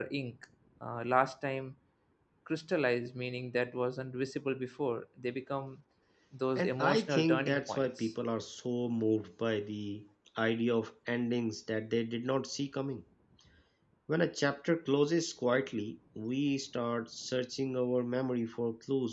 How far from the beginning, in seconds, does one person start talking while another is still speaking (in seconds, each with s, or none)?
6.6 s